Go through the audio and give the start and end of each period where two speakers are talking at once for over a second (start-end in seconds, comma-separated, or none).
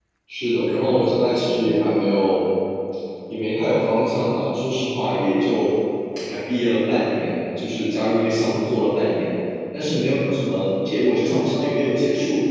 0.5-1.7